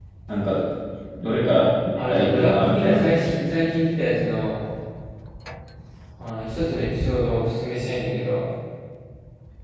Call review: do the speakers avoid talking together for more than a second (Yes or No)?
No